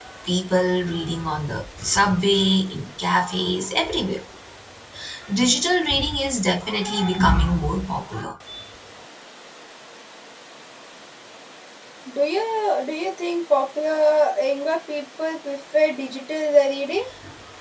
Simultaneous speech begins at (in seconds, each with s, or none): none